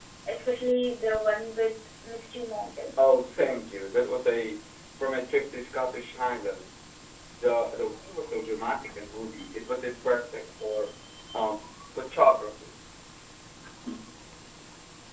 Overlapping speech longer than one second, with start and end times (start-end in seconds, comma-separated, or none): none